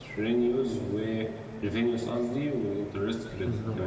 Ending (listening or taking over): taking over